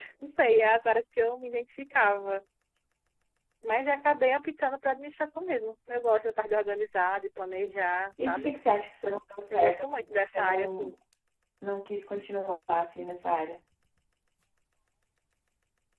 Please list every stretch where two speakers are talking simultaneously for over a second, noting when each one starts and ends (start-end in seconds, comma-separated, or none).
9.5-10.9